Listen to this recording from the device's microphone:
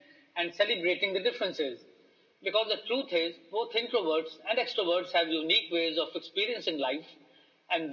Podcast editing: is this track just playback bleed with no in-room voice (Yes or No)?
Yes